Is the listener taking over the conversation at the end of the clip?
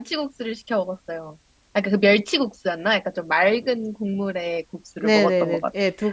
Yes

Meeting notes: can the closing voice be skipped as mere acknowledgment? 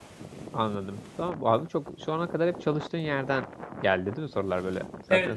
No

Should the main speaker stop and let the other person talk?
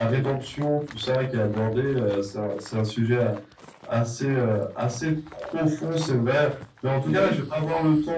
No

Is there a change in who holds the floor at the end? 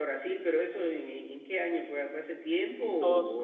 Yes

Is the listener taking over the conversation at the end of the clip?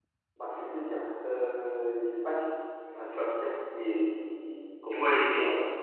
Yes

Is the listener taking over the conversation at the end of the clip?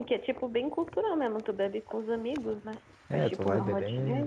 Yes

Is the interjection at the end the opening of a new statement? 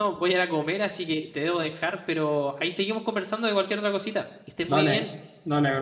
Yes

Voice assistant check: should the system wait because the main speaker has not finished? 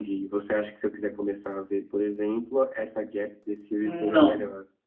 No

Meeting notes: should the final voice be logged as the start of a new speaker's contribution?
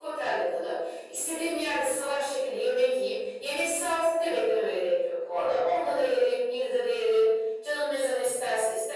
No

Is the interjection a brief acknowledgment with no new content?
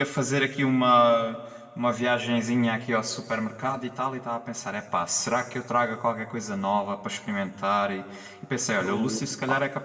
Yes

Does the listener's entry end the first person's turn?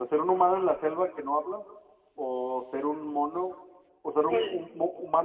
No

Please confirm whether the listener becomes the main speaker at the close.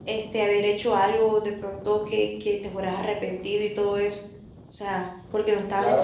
Yes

